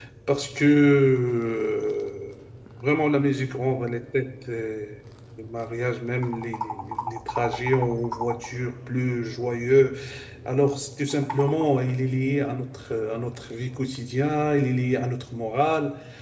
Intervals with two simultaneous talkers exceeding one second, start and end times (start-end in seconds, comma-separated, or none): none